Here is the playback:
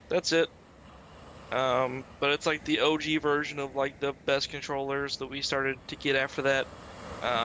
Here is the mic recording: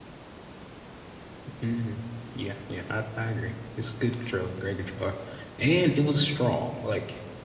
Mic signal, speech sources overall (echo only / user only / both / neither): user only